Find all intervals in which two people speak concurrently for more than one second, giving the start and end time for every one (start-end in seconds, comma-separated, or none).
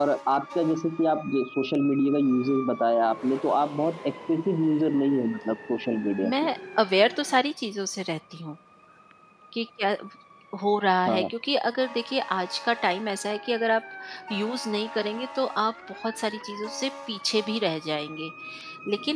none